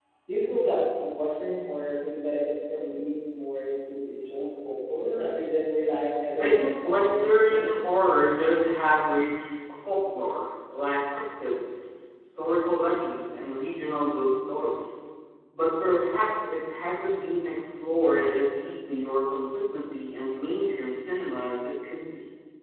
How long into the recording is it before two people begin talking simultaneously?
6.4 s

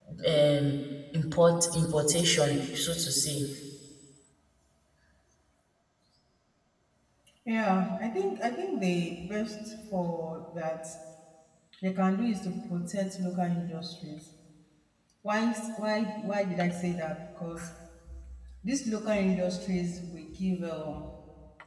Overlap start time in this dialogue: none

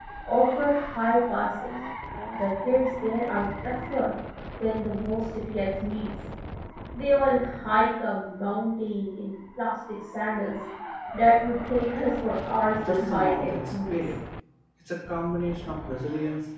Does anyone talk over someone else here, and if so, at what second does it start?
12.8 s

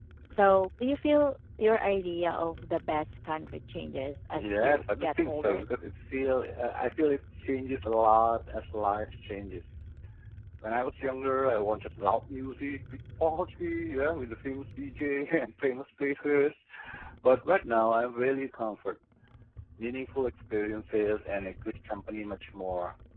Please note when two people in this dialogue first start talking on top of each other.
4.3 s

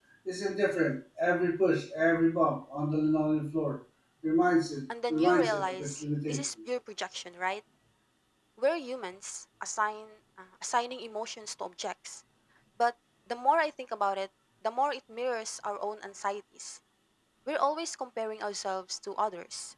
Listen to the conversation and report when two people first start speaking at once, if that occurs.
5.1 s

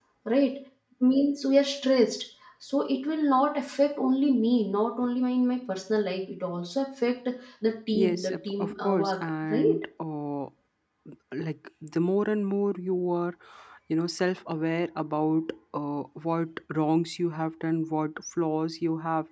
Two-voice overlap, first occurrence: 7.9 s

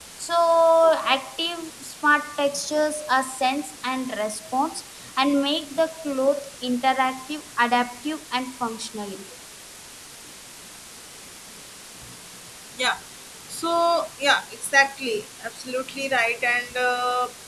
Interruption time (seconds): none

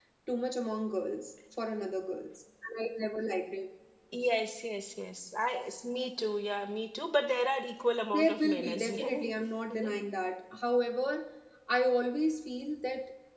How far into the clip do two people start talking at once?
8.1 s

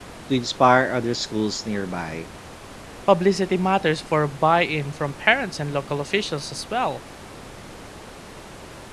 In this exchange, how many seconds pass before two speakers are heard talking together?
none

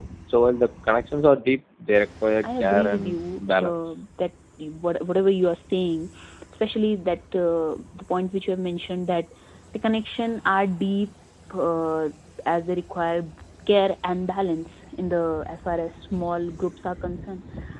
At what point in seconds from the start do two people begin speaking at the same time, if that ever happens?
2.4 s

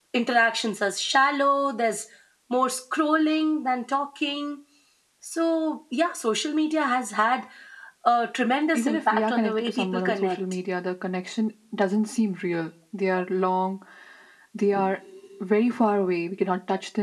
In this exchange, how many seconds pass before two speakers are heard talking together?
8.7 s

